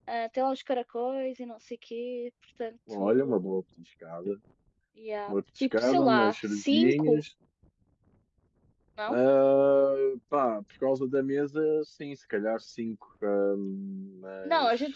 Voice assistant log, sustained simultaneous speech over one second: present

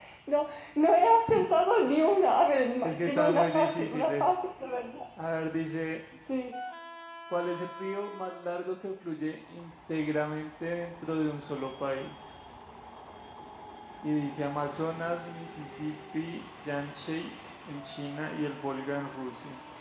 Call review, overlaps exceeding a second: present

